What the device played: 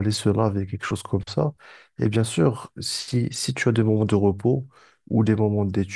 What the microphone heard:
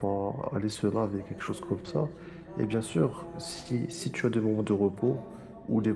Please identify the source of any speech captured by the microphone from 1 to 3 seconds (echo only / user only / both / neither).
both